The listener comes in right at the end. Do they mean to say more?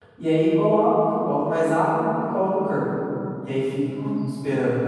No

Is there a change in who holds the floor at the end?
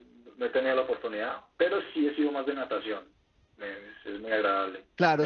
Yes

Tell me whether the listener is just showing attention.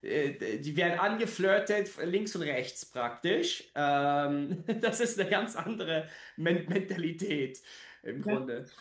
No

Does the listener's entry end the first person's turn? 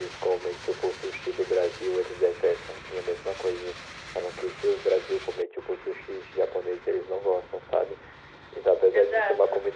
No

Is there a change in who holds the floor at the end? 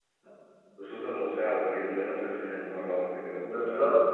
Yes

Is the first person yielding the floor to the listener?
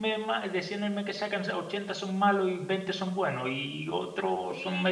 Yes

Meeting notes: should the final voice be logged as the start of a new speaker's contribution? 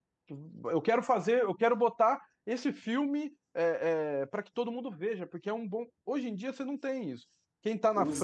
Yes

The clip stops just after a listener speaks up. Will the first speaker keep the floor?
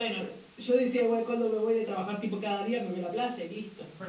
No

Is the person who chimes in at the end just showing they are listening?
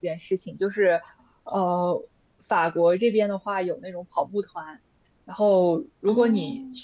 Yes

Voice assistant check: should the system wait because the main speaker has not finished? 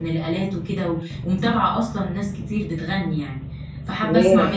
Yes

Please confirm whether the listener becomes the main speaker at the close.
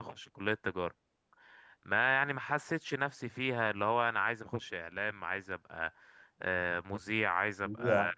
No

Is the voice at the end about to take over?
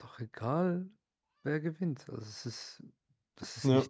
No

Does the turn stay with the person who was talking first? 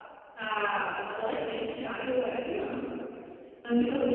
Yes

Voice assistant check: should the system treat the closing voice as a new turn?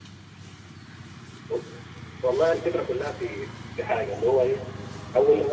No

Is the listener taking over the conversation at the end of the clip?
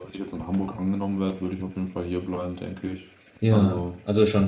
Yes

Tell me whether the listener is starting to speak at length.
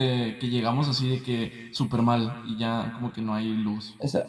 Yes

